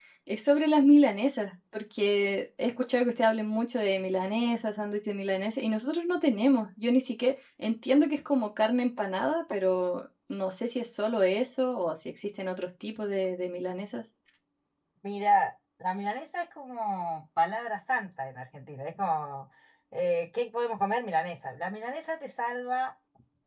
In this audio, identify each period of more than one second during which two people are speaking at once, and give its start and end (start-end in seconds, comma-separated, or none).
none